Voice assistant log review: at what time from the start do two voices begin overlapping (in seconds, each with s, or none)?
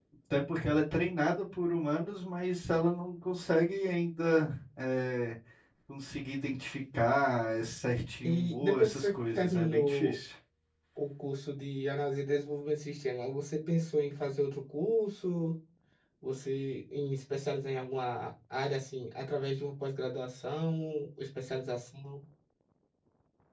8.2 s